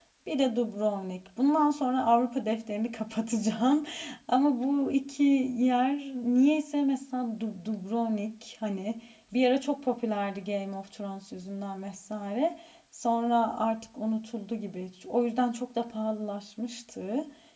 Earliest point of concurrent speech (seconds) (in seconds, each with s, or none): none